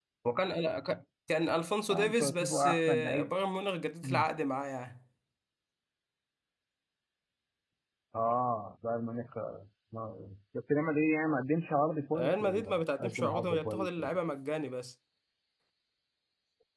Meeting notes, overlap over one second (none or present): present